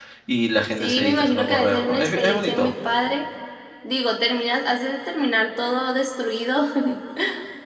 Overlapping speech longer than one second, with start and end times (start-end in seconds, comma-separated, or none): 0.8-2.7